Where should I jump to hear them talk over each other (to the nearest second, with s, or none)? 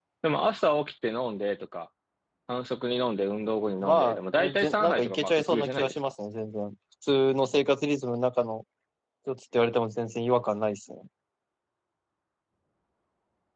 4 s